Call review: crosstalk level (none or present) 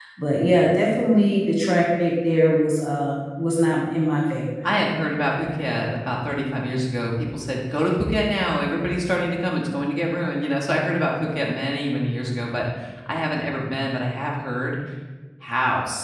none